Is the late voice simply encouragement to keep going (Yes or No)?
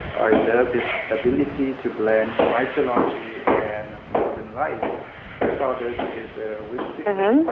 No